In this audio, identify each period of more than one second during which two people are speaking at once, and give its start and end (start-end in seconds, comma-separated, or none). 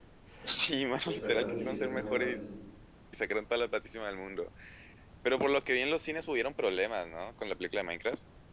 1.1-2.4